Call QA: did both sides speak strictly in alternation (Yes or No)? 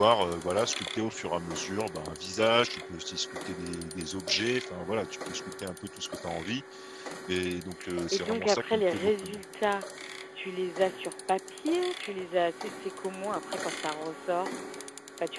No